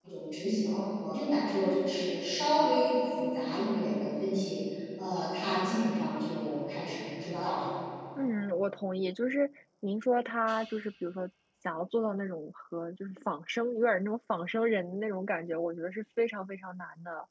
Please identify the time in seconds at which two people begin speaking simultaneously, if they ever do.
none

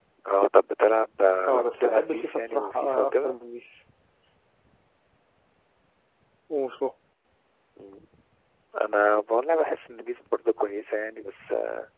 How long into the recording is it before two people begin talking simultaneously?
1.5 s

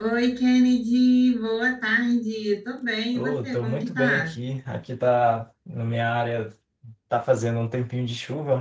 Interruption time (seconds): 3.1 s

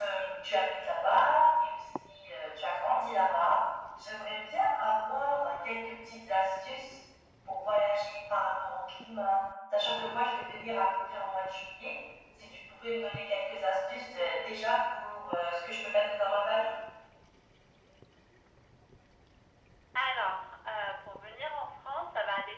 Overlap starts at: none

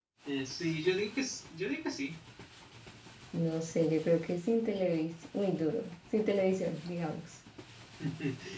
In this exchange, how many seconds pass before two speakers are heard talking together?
none

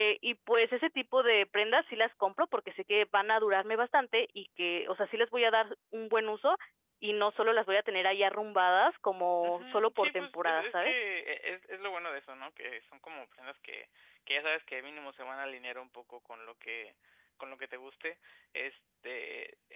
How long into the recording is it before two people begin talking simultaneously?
9.4 s

